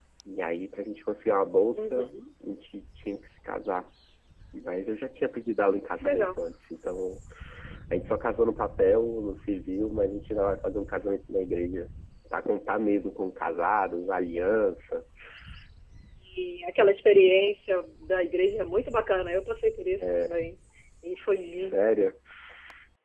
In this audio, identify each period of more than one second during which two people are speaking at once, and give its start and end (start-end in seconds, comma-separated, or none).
none